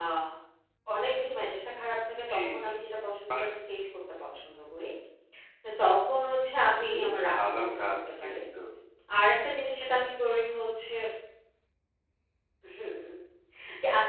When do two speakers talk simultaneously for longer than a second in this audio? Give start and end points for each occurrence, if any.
6.9-8.3

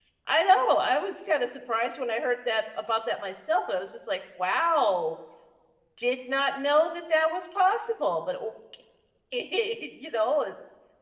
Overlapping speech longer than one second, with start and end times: none

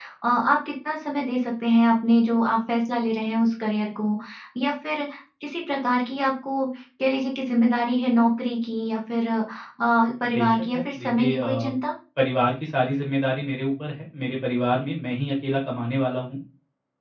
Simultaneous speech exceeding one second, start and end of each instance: 10.3-11.7

